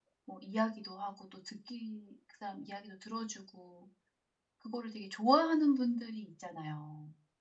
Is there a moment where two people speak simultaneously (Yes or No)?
No